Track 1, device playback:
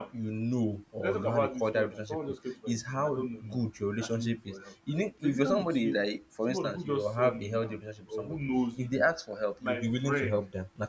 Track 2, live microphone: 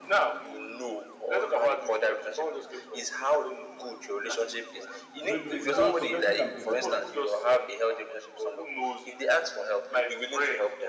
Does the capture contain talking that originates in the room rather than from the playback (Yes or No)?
Yes